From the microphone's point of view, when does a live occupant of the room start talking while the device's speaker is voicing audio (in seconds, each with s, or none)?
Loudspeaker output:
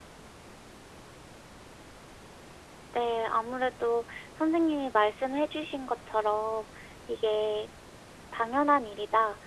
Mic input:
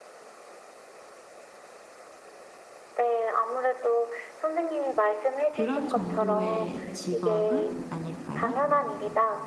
5.5 s